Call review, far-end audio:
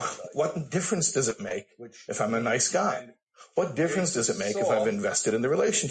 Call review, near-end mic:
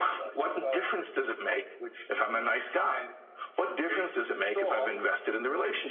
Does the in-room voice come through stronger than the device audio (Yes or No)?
No